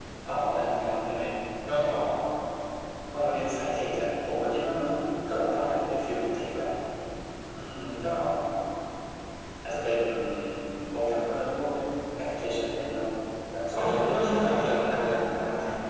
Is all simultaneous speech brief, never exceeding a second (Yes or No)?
No